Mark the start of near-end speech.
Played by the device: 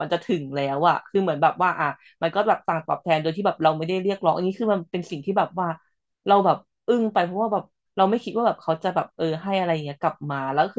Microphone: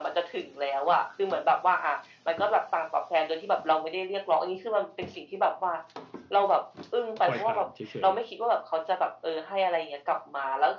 7.2 s

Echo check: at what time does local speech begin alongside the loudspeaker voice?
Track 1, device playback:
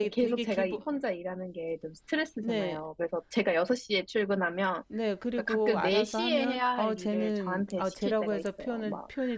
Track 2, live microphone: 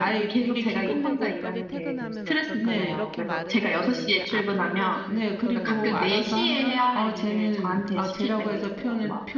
0.8 s

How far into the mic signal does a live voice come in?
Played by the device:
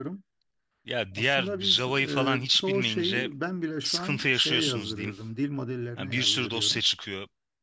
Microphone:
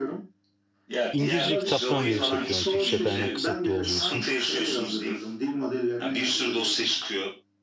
1.1 s

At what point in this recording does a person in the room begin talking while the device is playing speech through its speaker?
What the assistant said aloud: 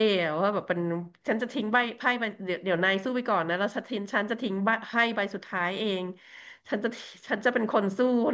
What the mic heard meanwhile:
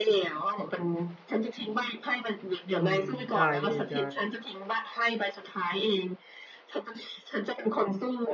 2.8 s

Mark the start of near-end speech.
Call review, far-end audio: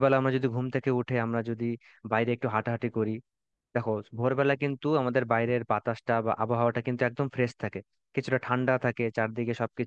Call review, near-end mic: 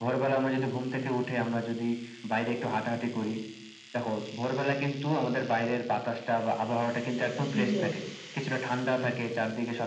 7.2 s

